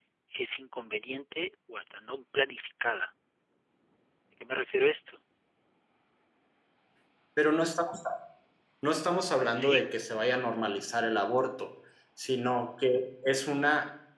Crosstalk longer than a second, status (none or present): none